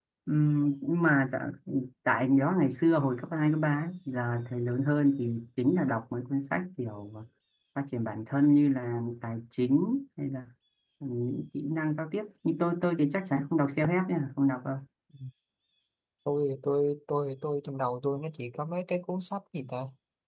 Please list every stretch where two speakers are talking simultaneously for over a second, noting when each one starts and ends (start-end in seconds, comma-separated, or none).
none